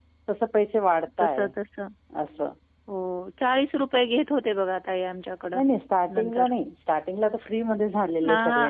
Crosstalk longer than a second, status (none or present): none